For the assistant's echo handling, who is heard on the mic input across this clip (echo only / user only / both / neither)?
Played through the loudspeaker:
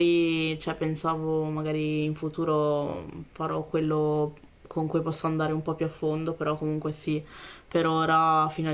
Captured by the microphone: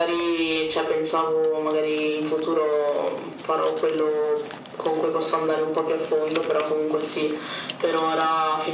echo only